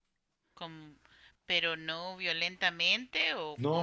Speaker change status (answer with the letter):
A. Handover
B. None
A